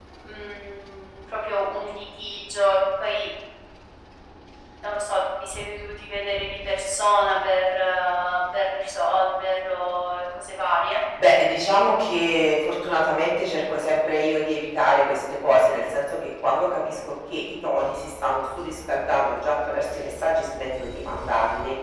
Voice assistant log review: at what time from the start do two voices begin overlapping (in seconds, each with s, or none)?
none